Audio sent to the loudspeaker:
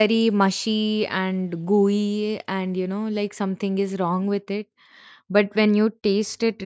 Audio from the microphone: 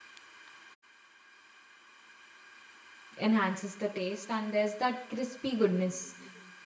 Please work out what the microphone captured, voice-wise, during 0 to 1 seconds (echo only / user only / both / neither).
neither